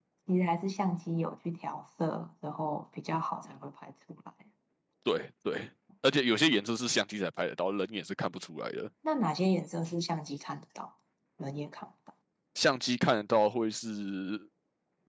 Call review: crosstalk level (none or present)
none